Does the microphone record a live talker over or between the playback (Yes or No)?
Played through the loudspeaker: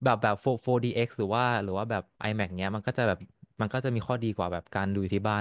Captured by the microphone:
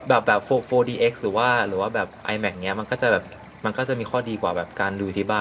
No